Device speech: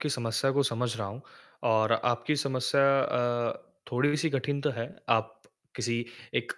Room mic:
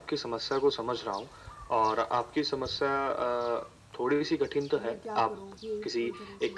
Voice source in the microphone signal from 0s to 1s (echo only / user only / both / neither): echo only